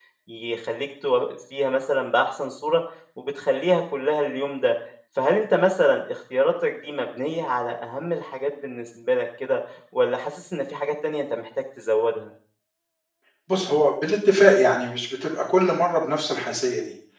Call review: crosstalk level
none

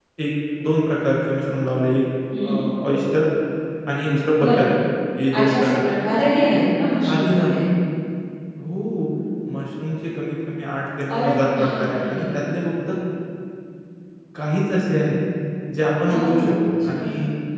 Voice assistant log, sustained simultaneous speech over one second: present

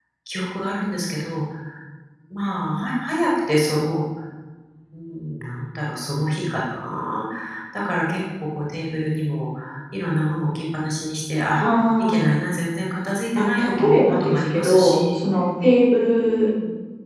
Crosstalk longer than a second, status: present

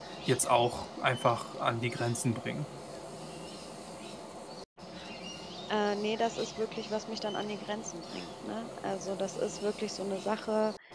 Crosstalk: none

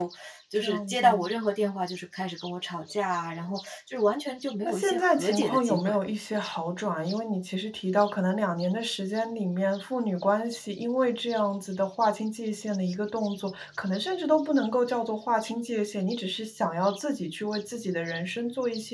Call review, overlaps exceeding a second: present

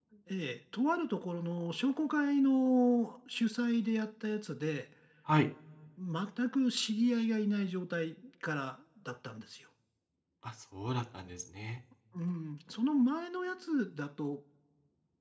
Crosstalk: none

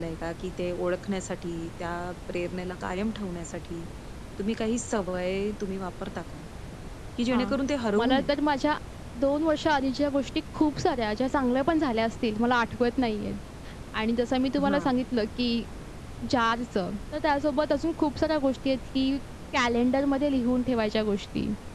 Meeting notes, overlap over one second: none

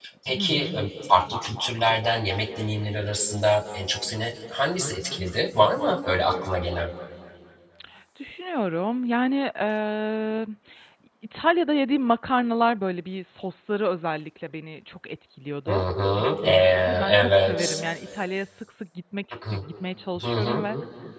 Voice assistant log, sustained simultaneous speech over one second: present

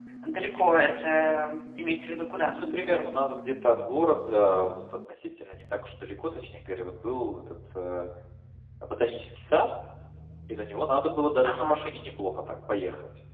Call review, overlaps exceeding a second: none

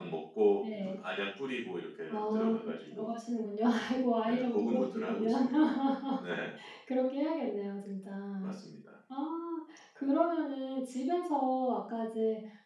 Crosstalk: present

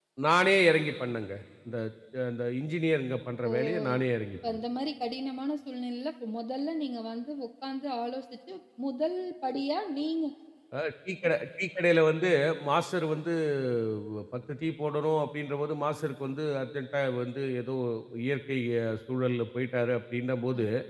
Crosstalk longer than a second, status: none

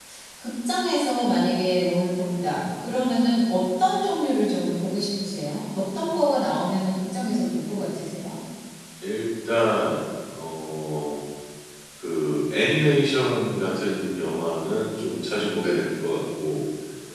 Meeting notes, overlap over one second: none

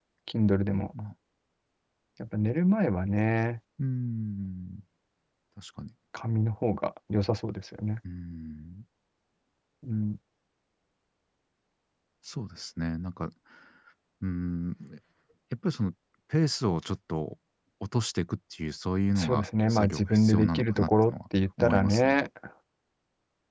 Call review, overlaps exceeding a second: present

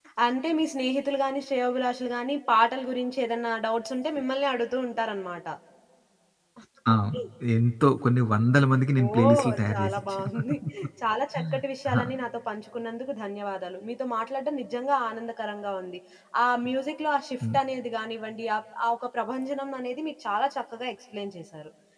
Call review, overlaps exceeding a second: present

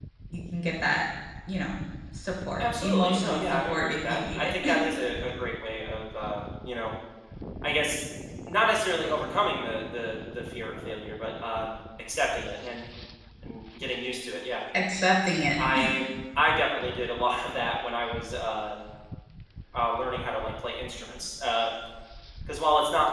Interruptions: present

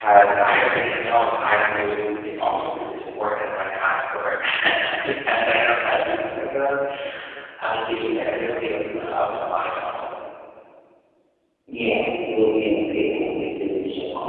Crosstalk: none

